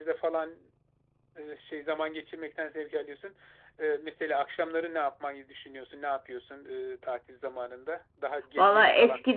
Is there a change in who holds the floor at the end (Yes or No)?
Yes